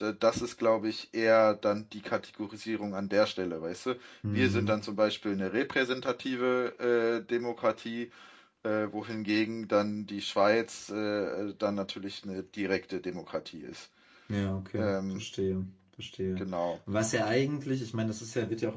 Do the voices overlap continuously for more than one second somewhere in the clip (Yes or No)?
No